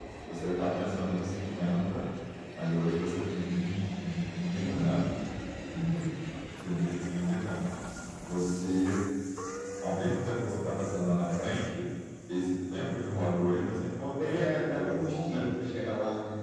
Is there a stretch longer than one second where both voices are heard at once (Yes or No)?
Yes